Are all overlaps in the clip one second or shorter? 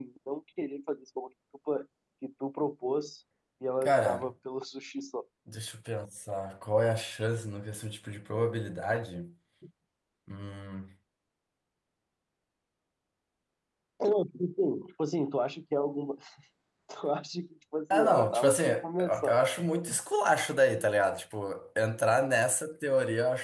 No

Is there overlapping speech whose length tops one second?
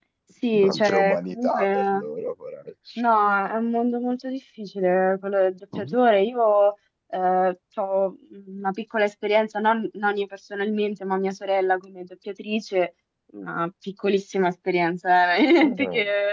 Yes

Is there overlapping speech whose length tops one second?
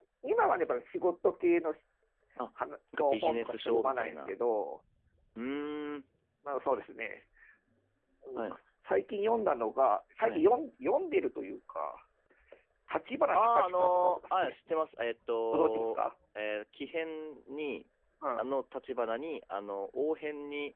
Yes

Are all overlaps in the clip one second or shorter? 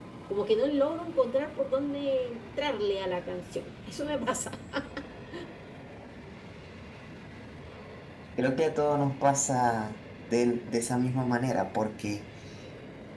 Yes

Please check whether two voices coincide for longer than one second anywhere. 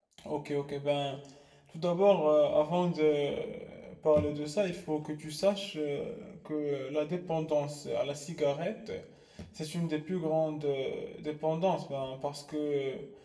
No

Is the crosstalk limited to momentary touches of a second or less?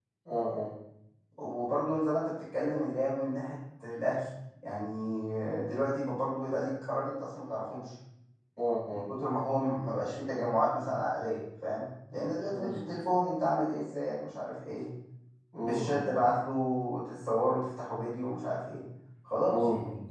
Yes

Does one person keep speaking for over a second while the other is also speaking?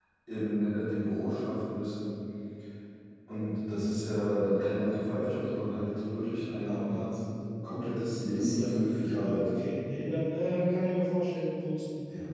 Yes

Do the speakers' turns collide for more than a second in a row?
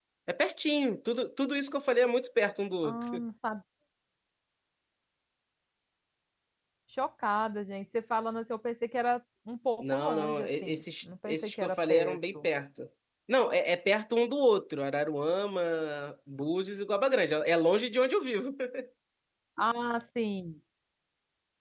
Yes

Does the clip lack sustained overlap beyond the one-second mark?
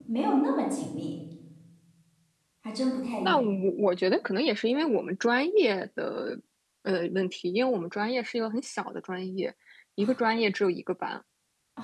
Yes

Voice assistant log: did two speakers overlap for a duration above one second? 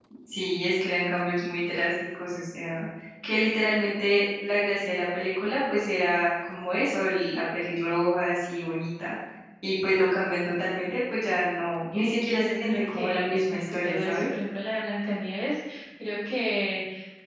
Yes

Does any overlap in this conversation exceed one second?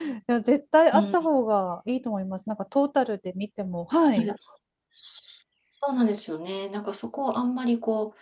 No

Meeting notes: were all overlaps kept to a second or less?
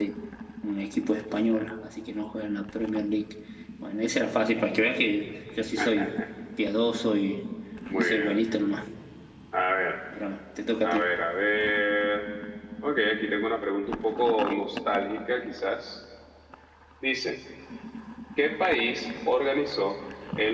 Yes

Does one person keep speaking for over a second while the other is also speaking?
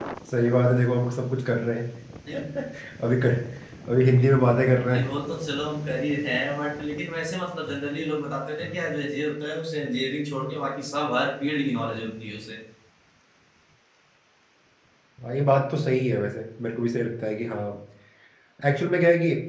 No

